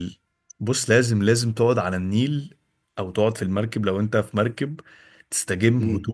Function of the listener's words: taking over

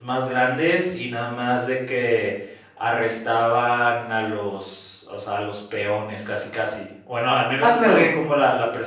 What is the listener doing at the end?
listening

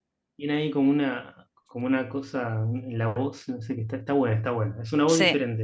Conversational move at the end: taking over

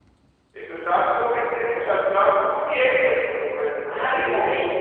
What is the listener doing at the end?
taking over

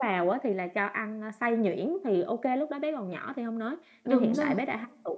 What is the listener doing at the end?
listening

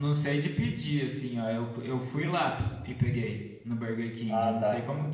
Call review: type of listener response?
listening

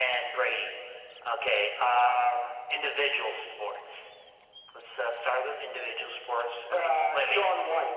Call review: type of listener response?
taking over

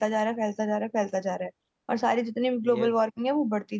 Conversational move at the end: listening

